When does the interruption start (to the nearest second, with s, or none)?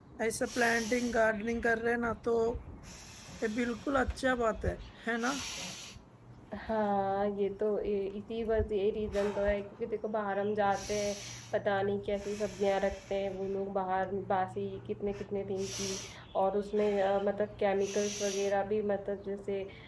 none